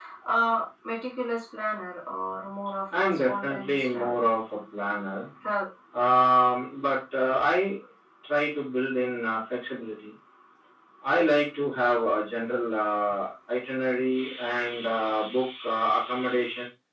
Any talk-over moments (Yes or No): Yes